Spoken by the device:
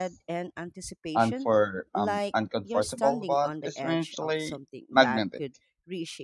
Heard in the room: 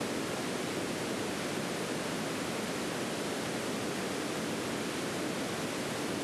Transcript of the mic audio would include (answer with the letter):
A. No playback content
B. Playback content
A